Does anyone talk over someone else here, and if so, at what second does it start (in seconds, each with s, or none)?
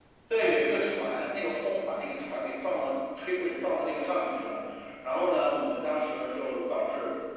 none